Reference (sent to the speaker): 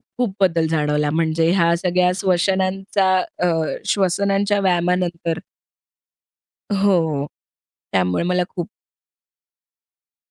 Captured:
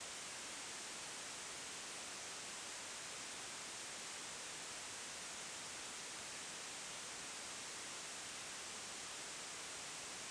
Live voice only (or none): none